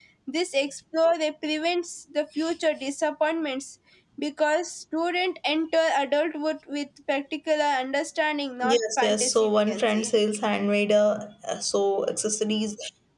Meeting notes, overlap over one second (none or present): present